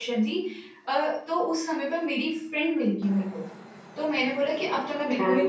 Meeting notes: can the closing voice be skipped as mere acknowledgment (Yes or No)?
Yes